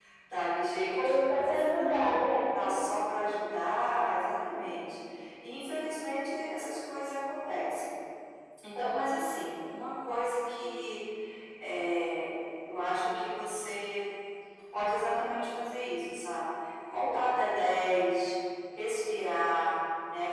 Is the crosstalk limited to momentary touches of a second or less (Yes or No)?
No